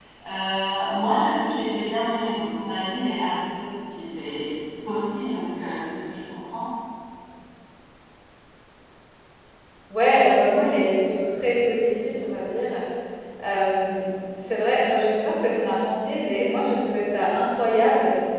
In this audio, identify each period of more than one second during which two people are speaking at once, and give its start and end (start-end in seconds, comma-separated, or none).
none